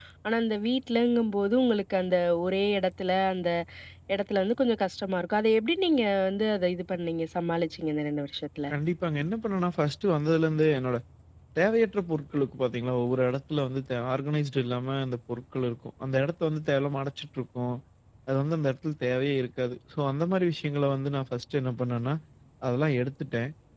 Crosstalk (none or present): none